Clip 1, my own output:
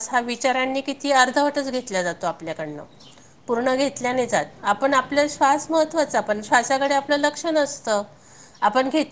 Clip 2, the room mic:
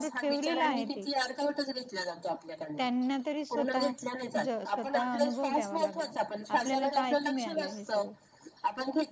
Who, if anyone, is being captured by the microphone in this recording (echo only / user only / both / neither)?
both